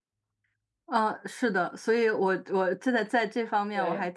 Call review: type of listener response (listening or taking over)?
listening